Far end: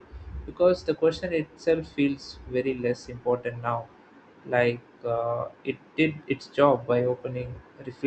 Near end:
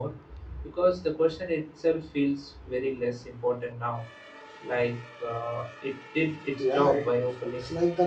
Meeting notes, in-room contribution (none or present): present